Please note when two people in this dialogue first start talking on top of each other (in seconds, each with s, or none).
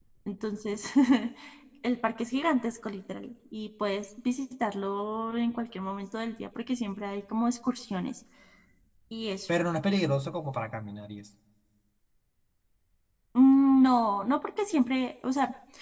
none